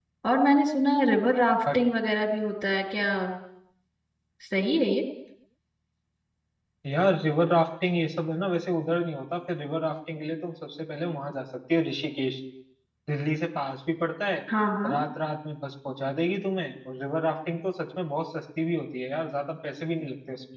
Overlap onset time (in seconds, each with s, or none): none